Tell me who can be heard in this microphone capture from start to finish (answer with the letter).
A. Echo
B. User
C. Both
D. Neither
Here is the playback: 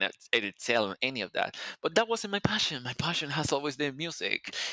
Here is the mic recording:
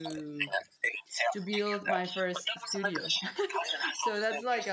C